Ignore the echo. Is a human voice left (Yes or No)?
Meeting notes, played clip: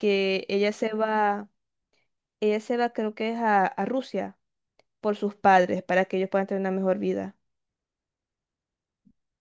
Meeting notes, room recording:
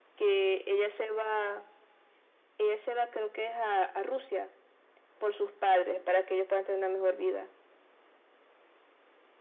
No